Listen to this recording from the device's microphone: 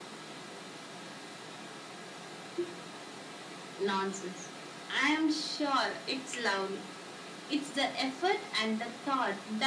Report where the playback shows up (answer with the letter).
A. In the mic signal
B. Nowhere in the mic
A